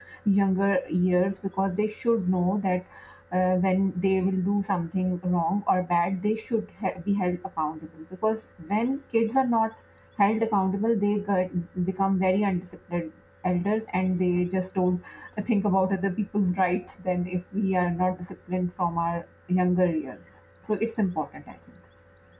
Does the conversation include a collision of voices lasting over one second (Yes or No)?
No